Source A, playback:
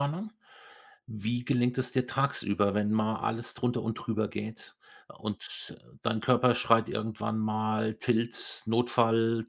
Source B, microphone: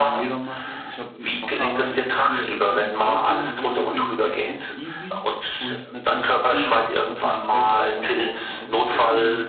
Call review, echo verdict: present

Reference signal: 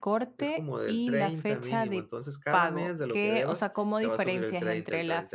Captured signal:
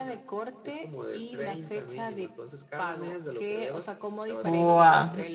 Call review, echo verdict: present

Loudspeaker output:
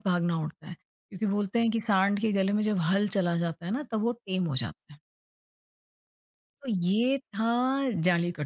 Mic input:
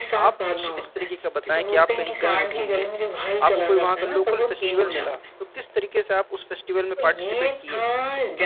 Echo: present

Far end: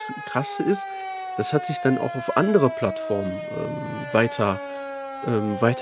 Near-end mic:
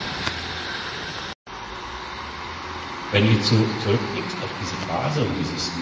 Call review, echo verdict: none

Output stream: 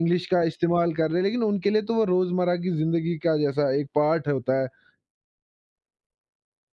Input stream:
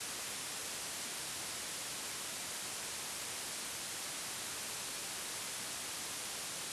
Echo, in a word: none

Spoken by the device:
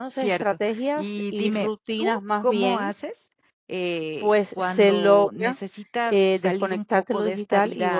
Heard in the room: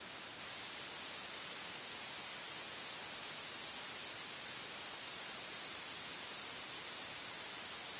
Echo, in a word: none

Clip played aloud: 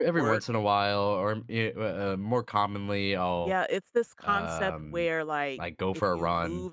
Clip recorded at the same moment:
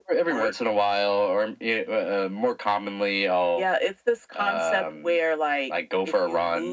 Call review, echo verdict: present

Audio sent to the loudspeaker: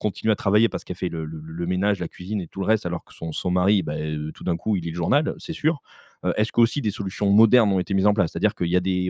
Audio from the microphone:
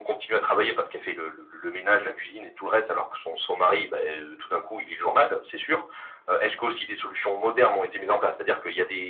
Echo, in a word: present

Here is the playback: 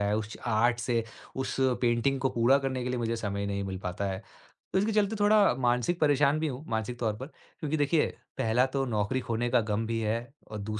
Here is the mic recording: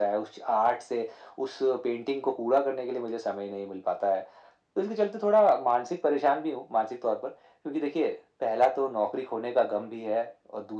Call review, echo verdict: present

